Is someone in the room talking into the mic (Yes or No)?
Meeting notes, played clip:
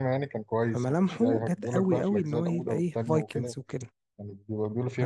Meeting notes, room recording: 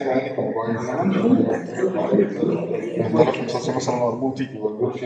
Yes